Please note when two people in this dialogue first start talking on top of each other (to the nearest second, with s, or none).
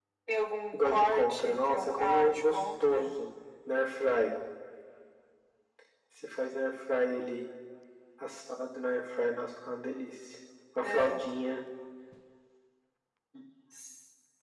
1 s